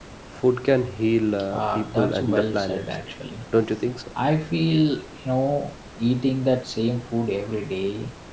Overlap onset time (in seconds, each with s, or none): 1.5 s